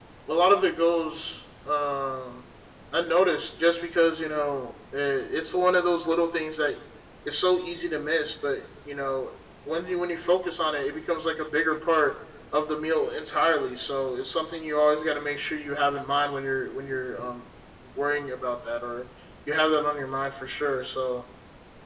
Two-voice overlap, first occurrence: none

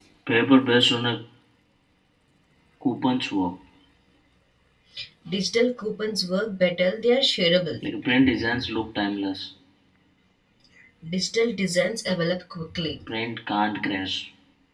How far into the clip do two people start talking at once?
none

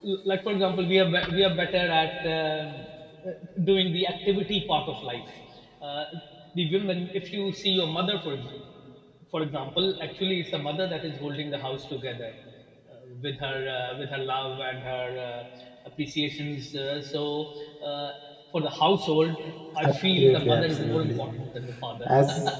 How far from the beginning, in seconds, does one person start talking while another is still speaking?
19.9 s

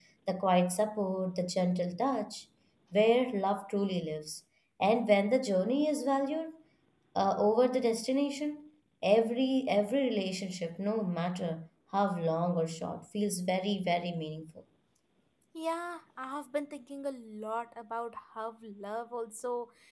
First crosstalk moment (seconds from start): none

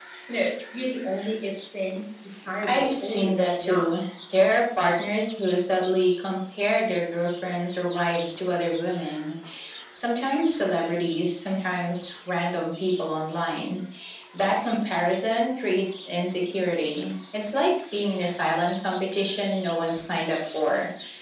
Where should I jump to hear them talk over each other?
2.6 s

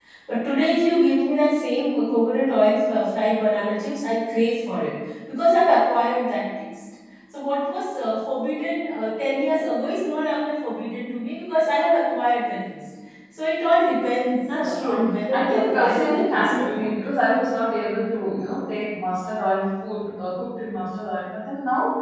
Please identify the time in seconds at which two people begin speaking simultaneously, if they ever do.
14.5 s

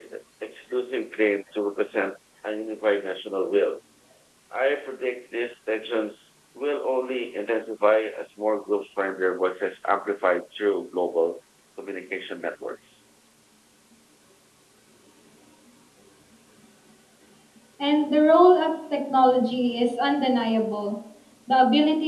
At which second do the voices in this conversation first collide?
none

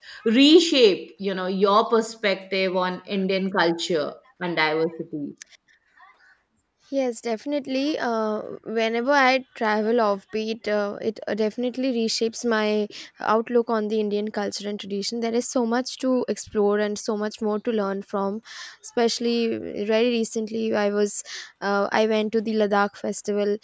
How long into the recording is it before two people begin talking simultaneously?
none

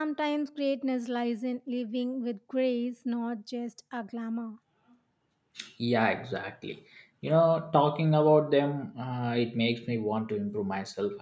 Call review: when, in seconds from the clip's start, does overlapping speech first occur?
none

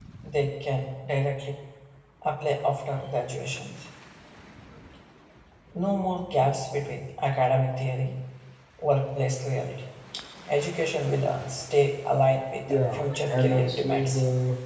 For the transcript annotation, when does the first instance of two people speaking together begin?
12.7 s

